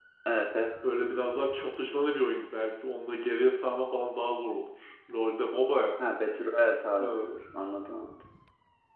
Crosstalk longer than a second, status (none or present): none